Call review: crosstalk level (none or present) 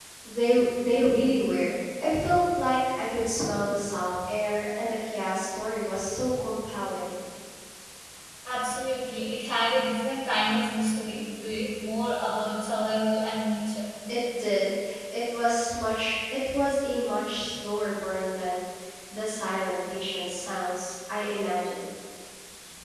none